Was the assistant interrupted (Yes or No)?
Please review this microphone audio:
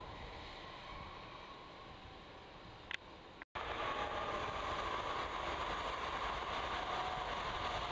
No